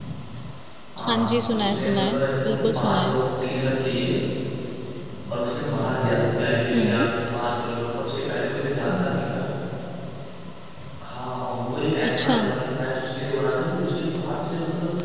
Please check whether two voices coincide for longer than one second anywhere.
Yes, from 1.1 s

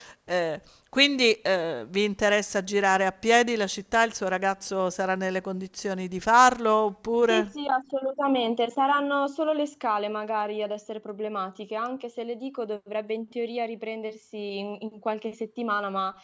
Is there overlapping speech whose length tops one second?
No

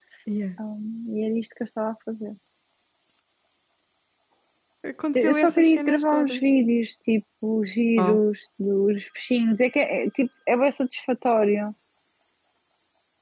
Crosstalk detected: Yes, from 5.1 s

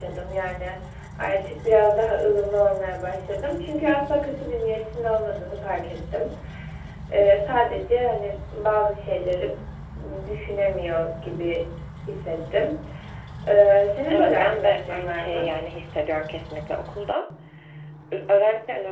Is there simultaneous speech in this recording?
Yes, from 14.1 s

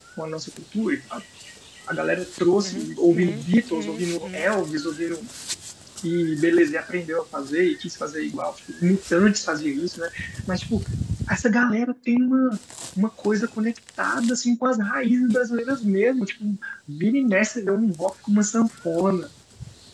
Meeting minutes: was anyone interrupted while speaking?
Yes, from 2.6 s

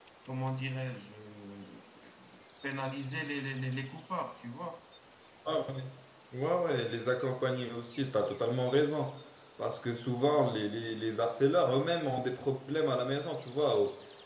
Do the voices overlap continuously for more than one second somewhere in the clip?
No

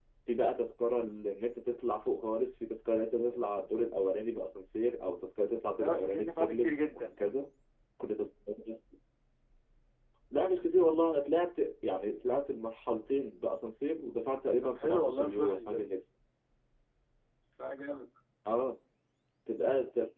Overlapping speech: Yes, from 5.8 s

